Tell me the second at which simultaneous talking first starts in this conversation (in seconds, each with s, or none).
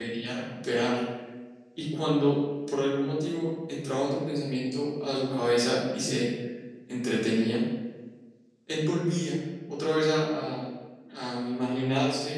none